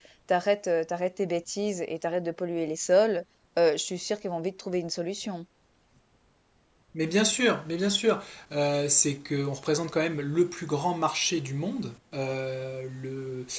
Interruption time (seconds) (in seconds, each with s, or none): none